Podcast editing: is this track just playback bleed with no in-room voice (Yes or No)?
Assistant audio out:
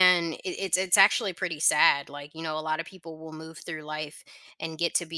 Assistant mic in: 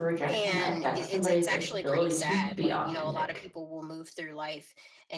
No